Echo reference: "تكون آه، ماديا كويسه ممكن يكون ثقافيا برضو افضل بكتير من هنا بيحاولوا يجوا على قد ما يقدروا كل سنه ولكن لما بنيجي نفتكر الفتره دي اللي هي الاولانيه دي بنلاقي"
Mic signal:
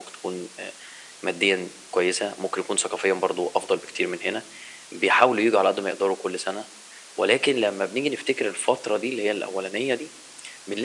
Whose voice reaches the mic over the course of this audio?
echo only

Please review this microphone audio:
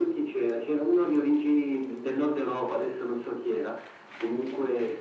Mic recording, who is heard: echo only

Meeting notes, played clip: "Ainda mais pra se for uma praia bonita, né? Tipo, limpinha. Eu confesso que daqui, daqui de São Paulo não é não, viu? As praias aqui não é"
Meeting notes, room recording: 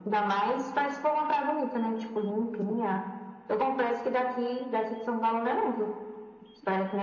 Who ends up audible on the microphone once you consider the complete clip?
echo only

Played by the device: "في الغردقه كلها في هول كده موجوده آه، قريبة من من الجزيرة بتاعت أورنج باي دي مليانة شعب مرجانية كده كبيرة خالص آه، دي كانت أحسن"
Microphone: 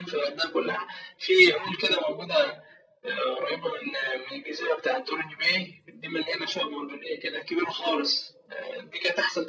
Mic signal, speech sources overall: echo only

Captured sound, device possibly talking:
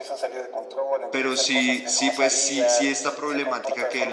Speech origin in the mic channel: both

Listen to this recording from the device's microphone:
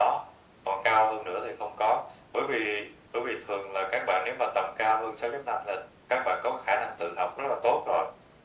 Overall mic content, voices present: echo only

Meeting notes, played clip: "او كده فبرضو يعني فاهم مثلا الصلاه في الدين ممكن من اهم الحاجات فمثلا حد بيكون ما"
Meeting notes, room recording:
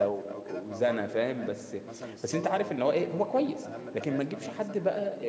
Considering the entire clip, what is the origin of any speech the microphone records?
both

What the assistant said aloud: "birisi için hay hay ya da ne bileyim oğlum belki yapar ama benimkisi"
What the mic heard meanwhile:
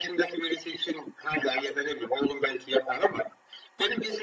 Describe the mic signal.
echo only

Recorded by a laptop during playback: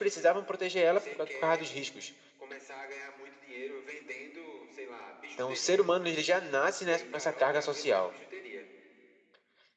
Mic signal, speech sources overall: both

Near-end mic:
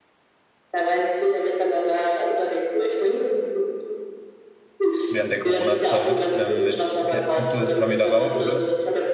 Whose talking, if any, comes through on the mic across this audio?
both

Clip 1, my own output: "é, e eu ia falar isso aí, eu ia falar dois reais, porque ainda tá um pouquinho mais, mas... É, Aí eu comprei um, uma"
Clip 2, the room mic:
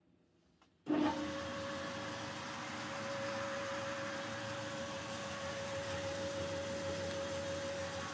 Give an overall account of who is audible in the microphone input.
neither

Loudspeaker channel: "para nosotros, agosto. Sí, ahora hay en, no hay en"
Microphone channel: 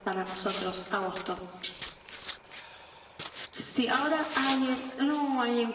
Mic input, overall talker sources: echo only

